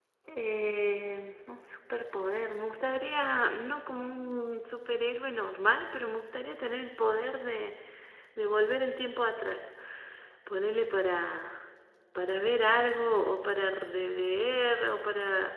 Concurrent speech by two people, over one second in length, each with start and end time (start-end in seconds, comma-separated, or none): none